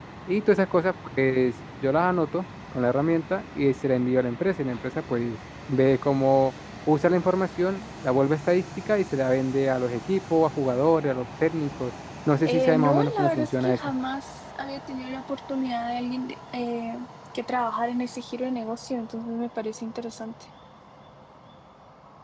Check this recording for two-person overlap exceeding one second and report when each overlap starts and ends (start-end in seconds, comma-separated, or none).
12.4-13.8